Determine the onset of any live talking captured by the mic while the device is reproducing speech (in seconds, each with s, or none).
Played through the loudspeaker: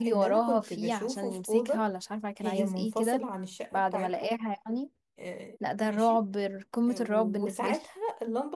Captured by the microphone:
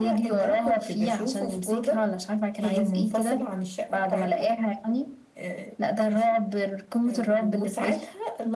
none